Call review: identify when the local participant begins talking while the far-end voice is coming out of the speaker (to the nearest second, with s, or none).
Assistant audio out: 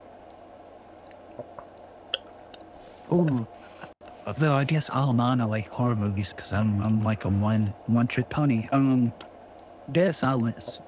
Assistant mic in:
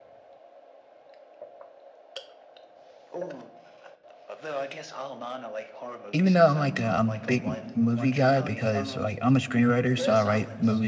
6 s